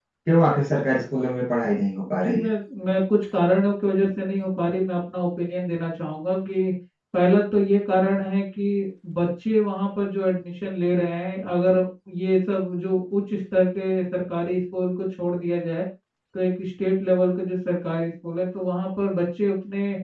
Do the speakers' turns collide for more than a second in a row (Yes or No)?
No